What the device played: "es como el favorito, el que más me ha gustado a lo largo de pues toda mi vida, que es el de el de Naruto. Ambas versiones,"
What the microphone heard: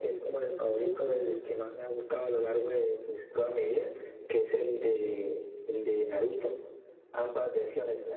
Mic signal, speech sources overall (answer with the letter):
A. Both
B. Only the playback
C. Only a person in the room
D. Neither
B